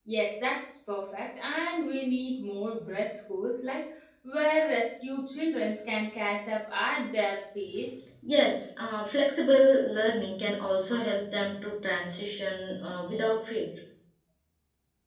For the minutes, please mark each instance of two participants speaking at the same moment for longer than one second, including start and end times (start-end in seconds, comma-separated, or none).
none